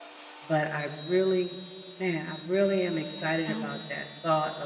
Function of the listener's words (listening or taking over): listening